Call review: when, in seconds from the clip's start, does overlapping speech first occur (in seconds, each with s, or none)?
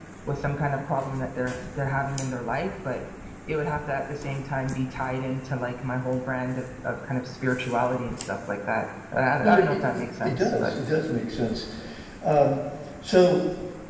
9.4 s